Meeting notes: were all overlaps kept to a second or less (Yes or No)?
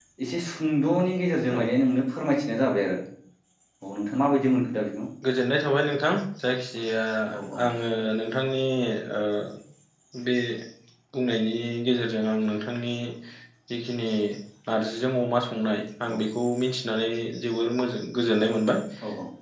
Yes